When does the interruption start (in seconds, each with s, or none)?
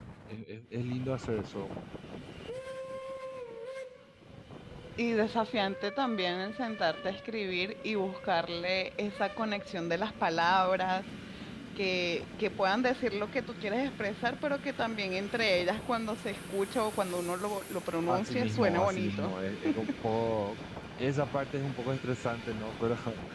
18.1 s